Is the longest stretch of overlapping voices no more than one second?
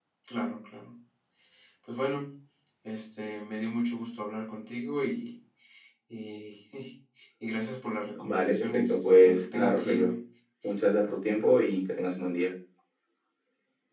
No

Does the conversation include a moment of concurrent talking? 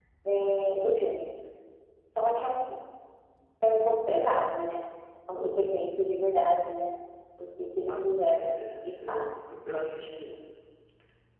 Yes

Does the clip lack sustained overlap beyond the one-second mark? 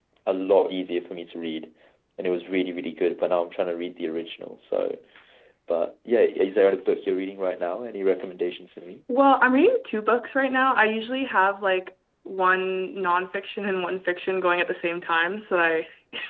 Yes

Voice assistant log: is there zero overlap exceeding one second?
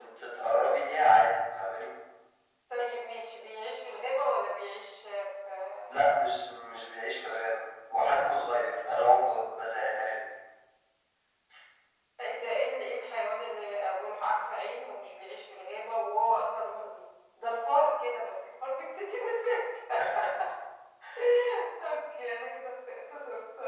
Yes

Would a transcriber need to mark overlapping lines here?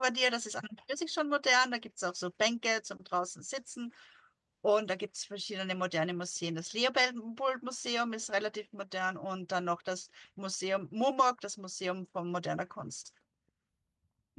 No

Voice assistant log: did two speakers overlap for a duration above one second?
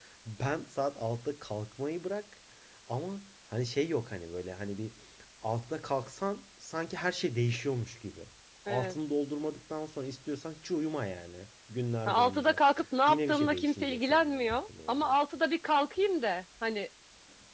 Yes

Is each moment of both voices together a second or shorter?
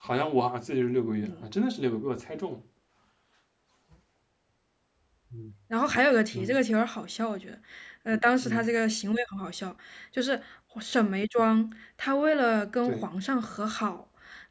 Yes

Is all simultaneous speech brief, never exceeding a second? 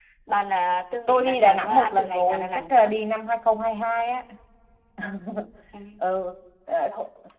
No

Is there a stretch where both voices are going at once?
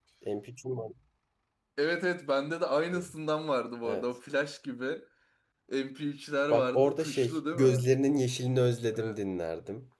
Yes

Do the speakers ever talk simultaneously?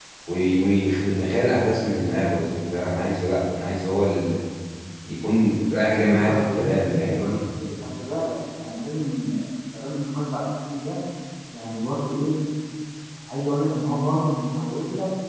Yes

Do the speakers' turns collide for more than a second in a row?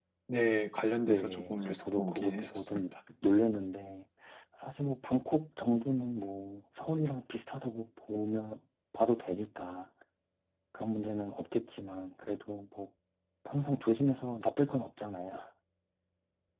Yes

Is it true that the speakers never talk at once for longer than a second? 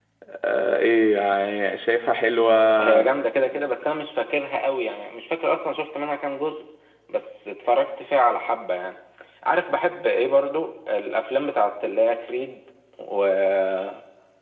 Yes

